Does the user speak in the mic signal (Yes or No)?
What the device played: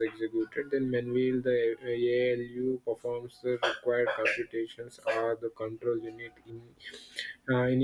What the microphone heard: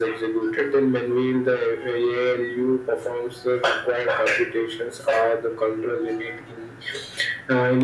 No